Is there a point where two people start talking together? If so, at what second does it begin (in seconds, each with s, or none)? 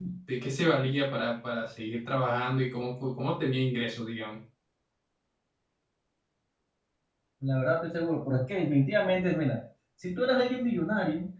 none